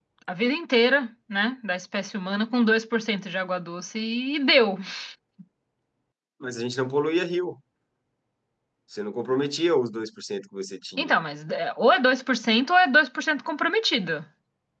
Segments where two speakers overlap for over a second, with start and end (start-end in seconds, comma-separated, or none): none